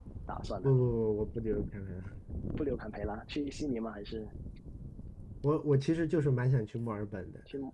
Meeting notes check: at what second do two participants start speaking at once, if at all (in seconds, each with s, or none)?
none